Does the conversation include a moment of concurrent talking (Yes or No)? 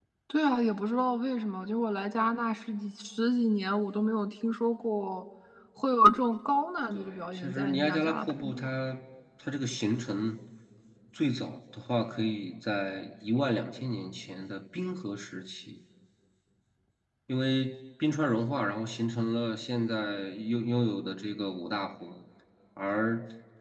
Yes